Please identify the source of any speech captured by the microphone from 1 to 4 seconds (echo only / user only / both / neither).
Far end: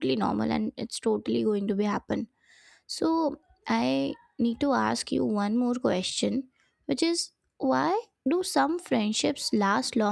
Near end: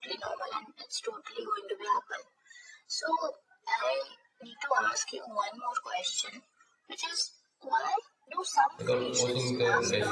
echo only